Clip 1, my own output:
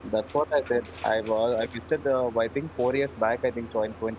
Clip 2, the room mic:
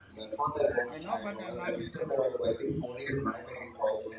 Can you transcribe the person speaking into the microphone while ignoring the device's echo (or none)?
I know, but I'm not visited.